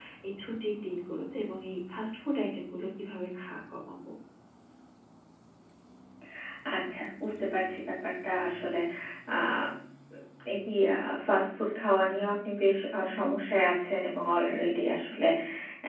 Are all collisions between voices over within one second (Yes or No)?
Yes